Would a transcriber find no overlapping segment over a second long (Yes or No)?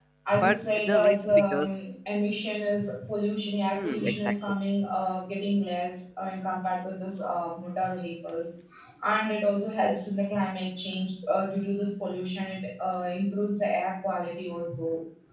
No